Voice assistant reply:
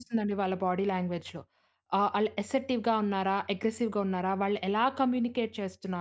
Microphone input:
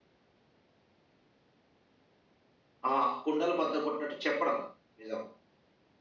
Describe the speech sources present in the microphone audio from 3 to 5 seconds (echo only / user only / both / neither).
user only